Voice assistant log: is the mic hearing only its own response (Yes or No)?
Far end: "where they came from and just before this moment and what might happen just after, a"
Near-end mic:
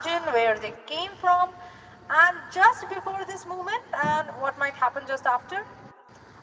Yes